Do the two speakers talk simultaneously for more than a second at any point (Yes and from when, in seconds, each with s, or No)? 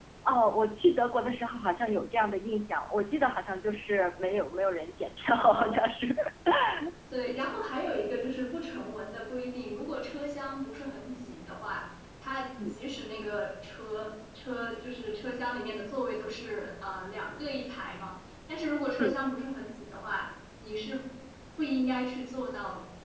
No